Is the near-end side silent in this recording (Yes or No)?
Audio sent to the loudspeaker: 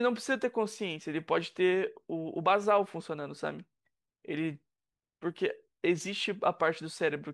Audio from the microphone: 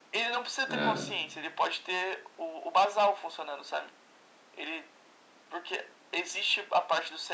No